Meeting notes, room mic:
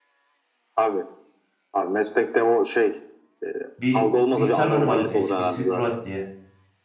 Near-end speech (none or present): present